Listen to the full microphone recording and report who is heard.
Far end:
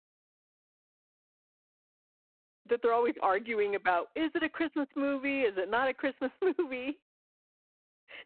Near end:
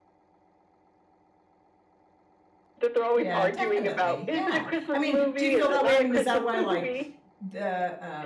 both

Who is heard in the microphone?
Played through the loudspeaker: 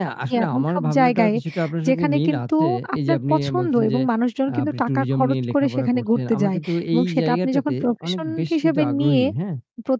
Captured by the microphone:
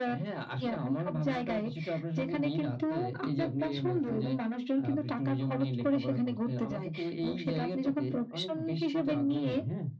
echo only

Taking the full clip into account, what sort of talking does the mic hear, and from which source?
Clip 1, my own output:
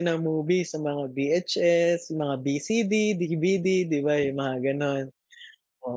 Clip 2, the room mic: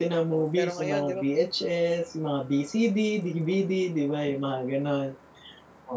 both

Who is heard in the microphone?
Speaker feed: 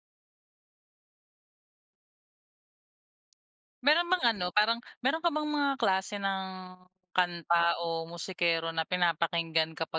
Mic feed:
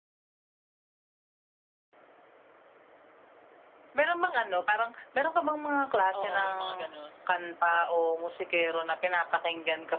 both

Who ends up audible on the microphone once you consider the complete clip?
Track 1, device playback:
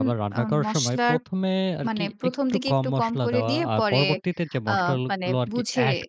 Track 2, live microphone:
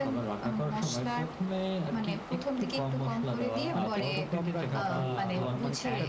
both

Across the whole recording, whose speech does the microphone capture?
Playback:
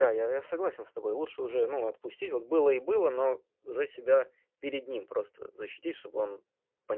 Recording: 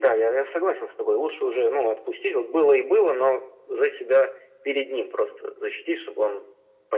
echo only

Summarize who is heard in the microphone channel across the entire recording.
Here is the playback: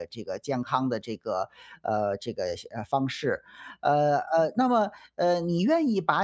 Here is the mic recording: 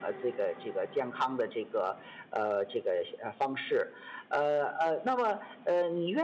echo only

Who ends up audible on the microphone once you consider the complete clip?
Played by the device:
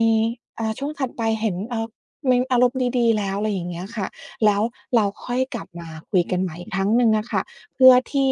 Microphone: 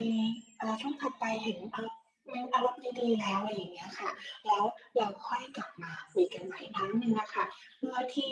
echo only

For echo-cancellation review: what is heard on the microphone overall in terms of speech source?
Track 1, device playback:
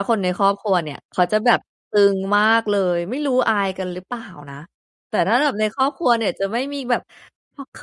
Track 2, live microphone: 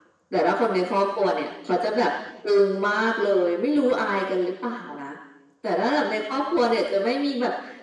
echo only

